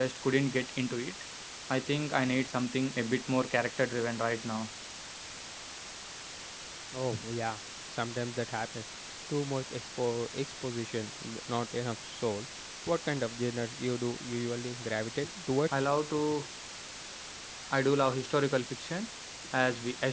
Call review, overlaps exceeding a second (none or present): none